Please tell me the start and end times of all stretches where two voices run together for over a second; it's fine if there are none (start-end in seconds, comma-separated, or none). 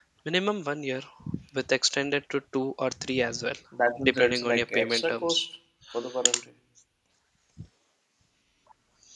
4.0-5.5